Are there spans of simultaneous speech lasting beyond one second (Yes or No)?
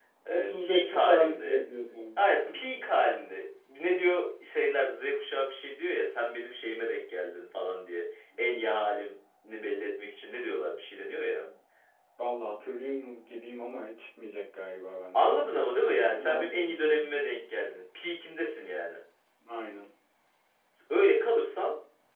Yes